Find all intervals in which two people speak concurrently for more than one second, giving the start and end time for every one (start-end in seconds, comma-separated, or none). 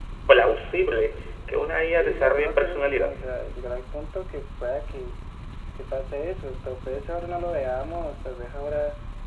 2.0-3.2